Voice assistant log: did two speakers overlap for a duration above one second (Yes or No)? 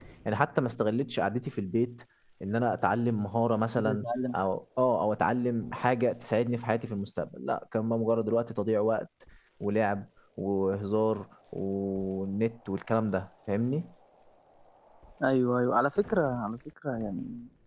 No